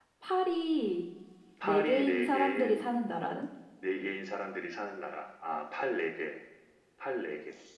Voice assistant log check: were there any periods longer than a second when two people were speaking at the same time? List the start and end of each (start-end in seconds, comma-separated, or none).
1.6-2.9